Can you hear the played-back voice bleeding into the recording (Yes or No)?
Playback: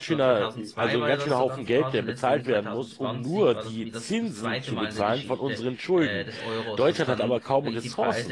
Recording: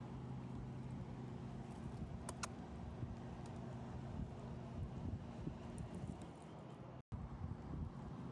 No